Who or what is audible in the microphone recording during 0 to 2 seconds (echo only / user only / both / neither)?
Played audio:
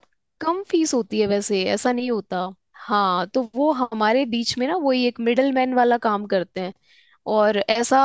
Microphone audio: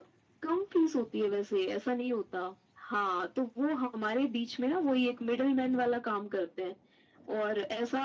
echo only